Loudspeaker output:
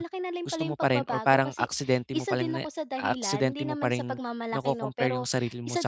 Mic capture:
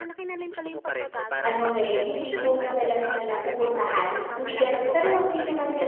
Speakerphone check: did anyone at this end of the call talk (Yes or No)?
Yes